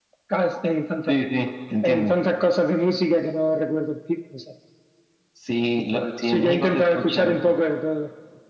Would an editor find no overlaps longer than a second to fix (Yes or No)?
No